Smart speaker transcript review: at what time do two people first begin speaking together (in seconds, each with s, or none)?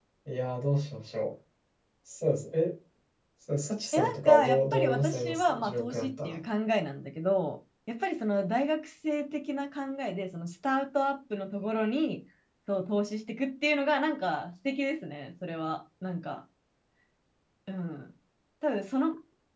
3.9 s